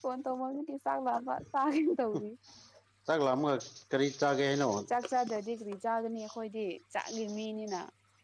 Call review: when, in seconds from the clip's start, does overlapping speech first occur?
none

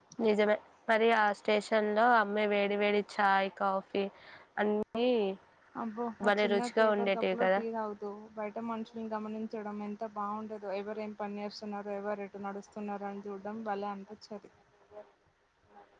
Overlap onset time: 6.3 s

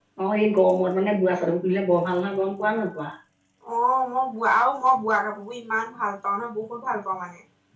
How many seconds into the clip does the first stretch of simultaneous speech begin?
none

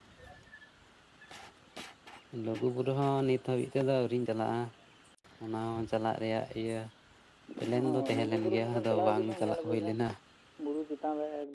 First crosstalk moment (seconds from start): 7.8 s

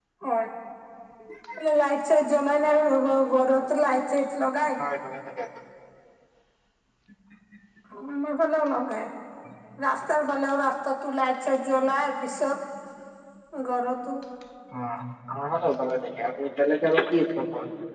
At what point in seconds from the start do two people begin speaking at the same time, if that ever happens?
none

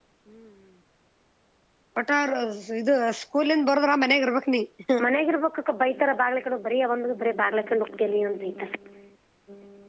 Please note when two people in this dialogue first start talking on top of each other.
none

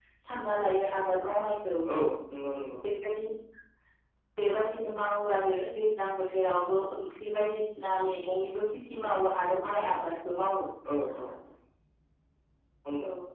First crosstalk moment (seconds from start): none

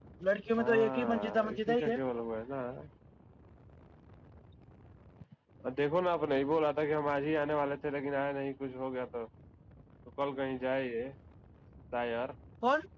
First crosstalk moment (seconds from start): 0.6 s

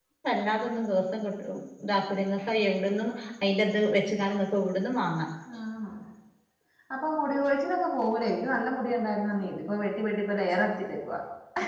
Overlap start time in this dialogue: none

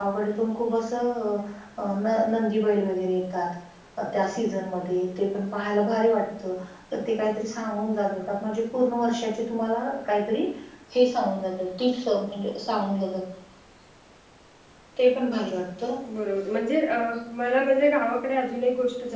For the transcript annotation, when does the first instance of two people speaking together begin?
none

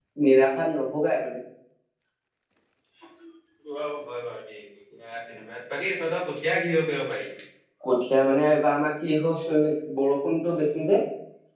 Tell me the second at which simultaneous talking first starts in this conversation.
none

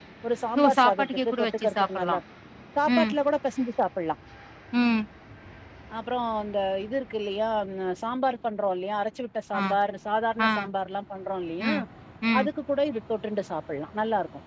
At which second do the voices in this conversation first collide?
0.6 s

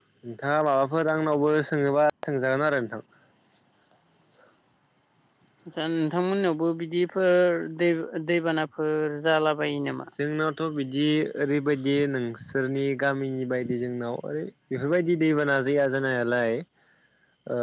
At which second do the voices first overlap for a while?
none

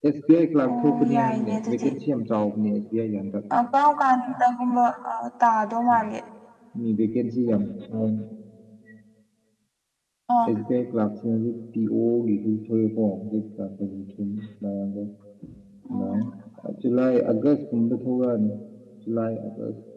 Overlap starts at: 0.7 s

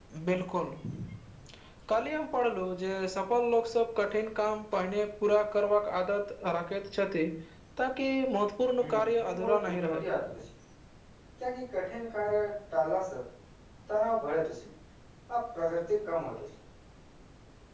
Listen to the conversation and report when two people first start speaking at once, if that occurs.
8.8 s

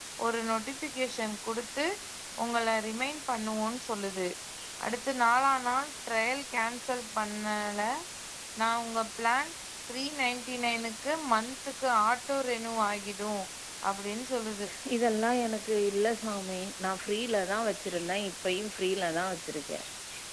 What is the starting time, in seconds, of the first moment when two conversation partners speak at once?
none

